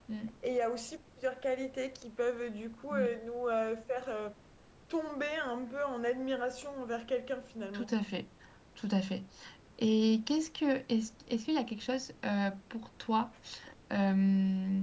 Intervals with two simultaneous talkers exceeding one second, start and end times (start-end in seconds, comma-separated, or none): none